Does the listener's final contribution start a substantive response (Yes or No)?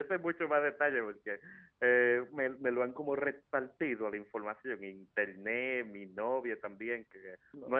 No